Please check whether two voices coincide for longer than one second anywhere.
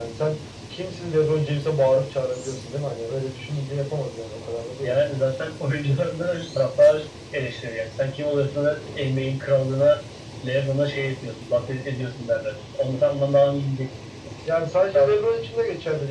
No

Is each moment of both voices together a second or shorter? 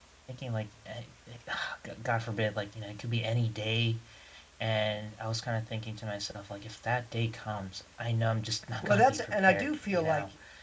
No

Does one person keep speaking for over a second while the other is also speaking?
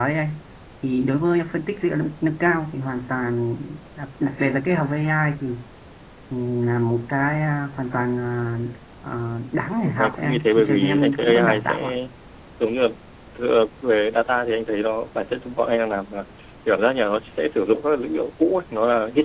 Yes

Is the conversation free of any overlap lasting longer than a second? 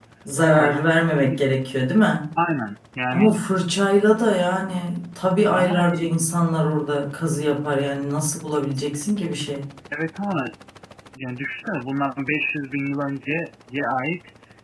Yes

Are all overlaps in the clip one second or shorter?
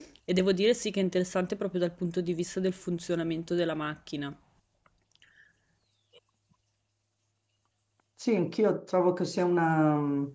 Yes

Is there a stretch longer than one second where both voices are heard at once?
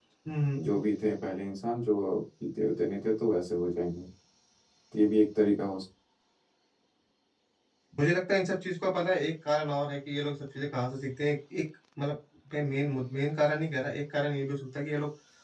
No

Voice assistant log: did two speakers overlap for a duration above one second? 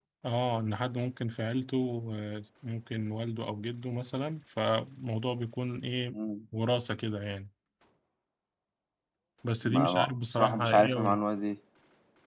Yes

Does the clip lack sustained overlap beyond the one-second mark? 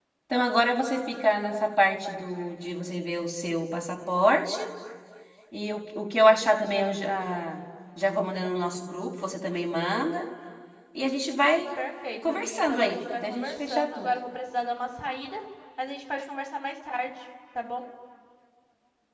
No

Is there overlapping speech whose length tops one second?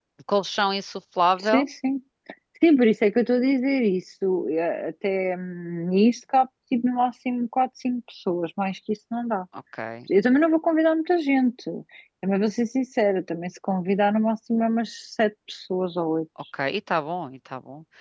No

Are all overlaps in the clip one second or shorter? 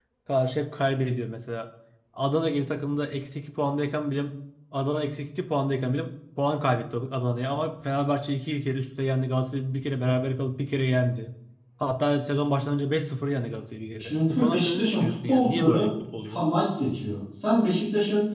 No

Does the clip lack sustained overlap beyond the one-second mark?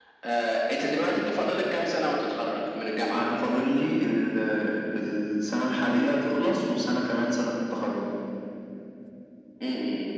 Yes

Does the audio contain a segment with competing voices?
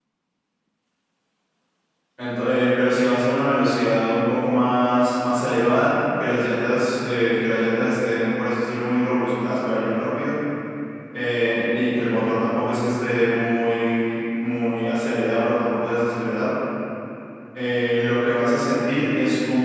No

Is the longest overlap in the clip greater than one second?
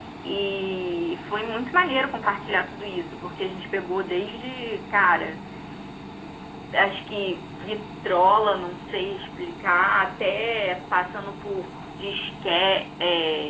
No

